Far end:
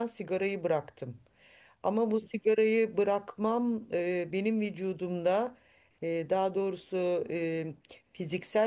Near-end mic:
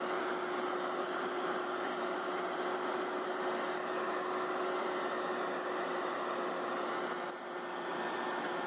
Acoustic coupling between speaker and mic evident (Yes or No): No